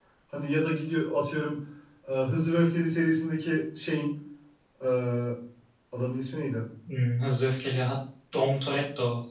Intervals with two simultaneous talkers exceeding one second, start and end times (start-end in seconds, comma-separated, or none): none